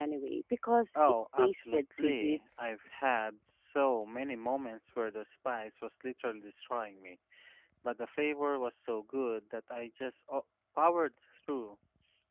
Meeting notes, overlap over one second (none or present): present